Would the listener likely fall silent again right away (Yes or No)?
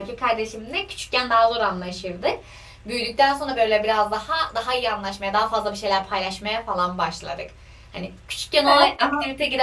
Yes